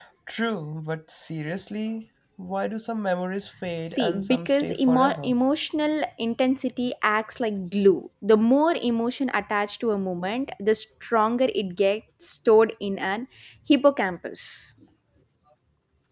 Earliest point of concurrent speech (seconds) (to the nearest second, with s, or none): 4 s